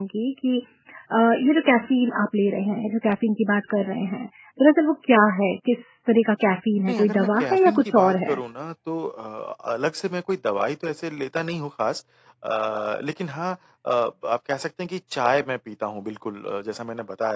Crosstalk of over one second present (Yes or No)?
Yes